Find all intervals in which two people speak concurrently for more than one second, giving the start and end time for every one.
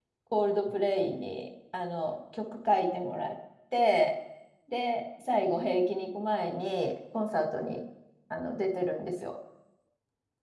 none

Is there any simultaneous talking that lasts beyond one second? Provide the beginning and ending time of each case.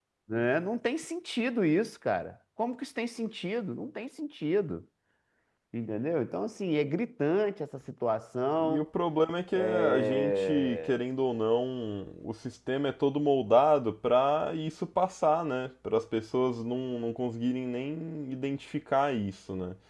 9.6-11.0

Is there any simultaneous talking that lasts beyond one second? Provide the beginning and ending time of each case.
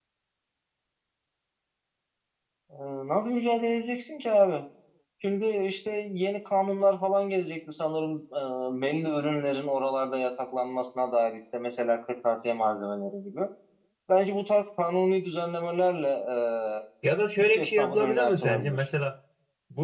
17.4-18.9

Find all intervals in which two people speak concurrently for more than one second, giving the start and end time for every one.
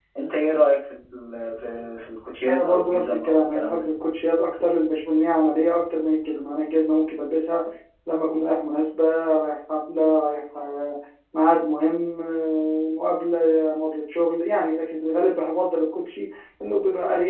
2.5-3.8

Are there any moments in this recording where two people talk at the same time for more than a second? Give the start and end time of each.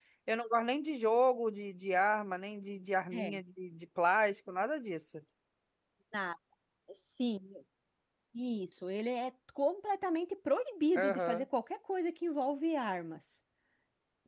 none

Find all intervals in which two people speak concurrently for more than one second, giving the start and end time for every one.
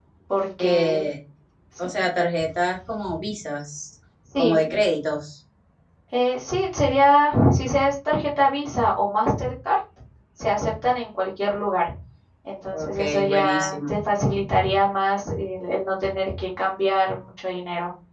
12.7-13.9

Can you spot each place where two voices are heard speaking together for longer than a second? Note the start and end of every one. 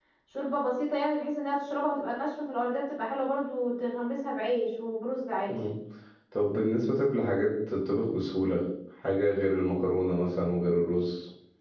none

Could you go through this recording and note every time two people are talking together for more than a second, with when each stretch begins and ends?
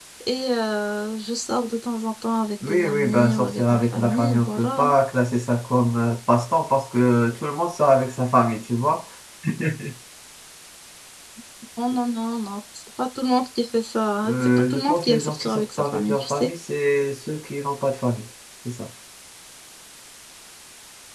2.7-5.0, 14.2-16.5

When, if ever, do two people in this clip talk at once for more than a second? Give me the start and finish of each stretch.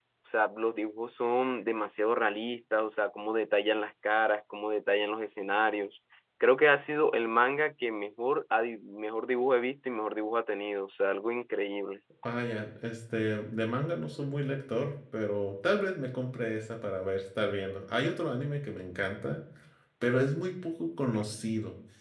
none

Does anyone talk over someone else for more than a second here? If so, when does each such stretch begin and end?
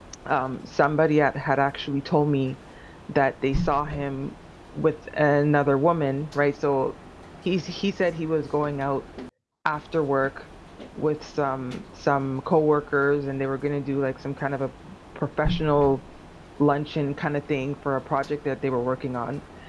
none

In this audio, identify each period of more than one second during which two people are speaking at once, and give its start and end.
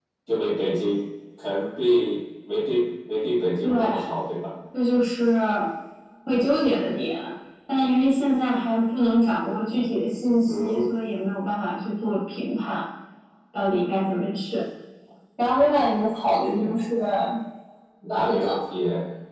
none

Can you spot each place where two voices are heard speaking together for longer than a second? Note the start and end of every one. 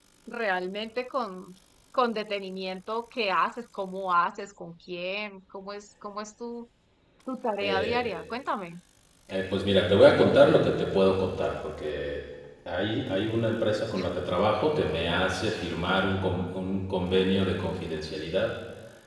none

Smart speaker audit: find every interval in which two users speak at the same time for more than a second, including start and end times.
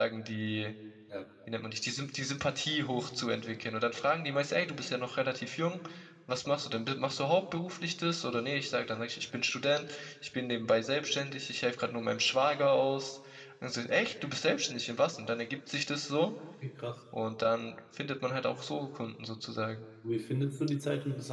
none

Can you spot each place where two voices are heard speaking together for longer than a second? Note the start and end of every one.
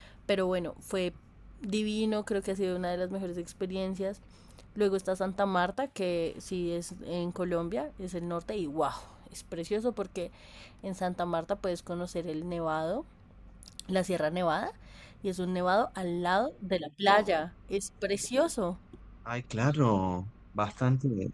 none

